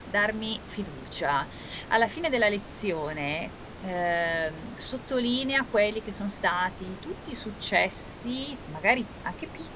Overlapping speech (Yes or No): No